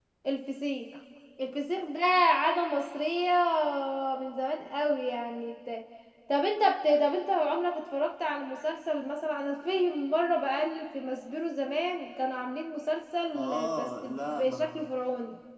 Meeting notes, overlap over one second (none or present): present